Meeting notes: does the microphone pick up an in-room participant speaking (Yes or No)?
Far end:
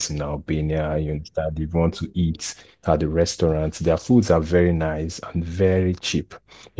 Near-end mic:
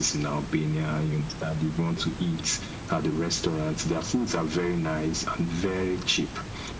No